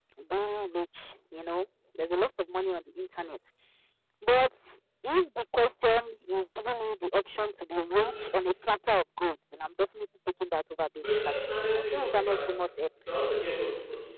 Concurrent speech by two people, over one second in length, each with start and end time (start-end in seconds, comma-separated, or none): 11.0-12.5